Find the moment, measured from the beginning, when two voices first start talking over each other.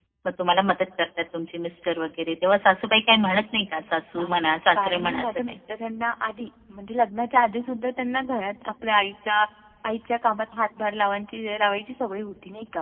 4.1 s

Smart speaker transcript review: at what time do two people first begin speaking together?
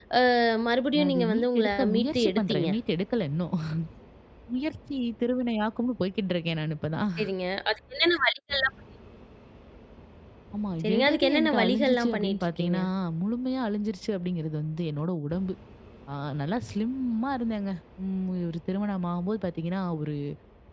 1.0 s

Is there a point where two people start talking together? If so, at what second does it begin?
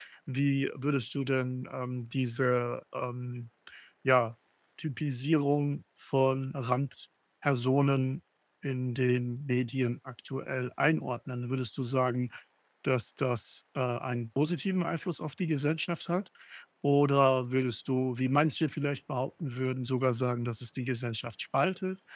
none

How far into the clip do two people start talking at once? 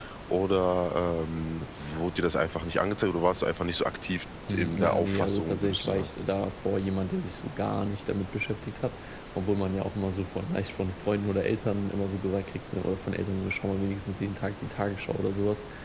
4.5 s

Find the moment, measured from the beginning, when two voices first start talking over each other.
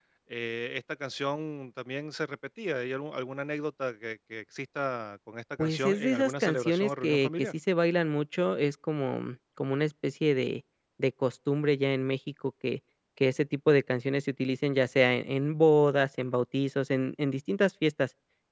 5.6 s

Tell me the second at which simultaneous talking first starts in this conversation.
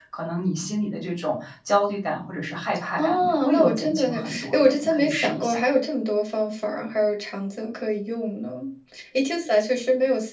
3.0 s

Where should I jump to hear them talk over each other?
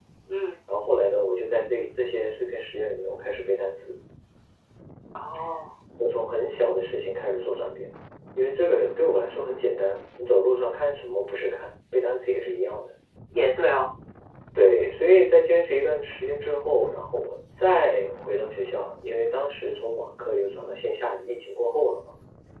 none

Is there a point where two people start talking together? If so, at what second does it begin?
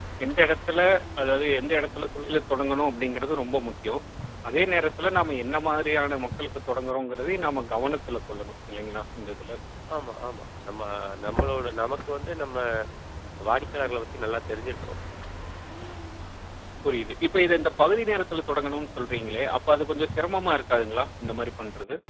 none

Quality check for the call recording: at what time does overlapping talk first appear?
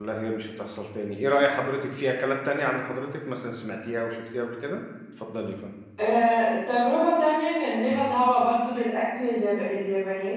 none

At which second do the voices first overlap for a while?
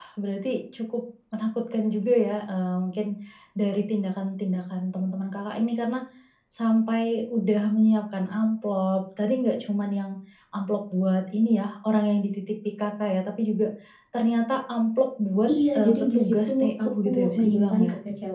15.5 s

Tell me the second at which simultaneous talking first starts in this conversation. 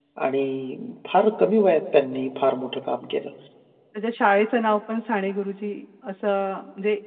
none

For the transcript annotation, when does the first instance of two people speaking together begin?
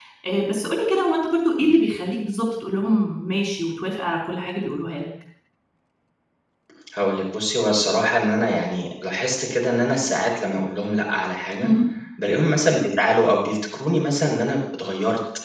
none

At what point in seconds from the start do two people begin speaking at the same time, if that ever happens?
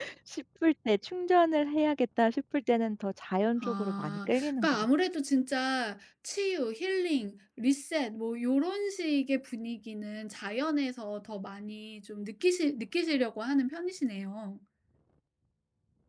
3.6 s

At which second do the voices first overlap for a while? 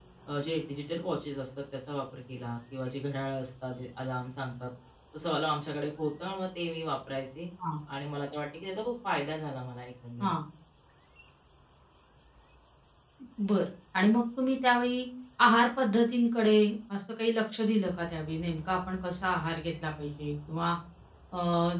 none

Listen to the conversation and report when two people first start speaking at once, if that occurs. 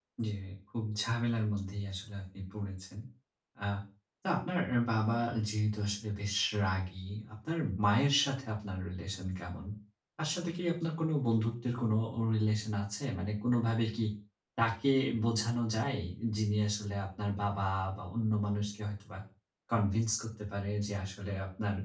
none

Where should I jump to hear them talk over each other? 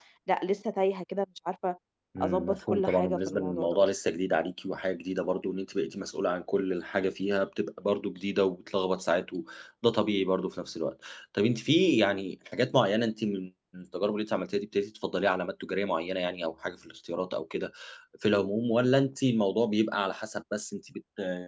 2.2 s

